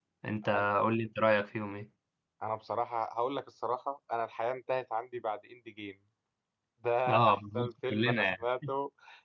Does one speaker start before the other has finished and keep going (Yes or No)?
Yes